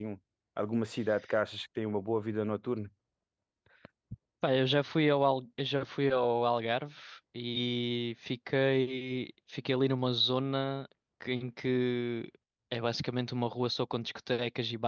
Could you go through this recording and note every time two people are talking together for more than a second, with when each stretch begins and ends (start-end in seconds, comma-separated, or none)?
none